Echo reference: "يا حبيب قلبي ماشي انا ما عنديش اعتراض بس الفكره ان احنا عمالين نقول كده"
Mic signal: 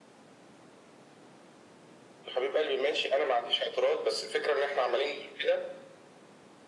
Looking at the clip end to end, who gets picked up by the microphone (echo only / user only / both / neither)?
echo only